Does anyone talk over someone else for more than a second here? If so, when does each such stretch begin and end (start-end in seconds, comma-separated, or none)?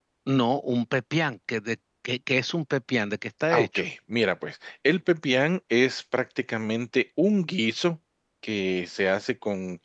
none